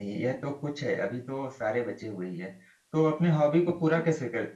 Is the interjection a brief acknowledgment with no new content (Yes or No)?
Yes